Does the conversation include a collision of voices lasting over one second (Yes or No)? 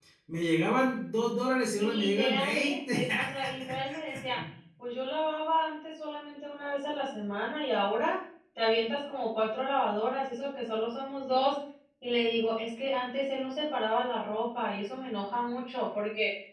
Yes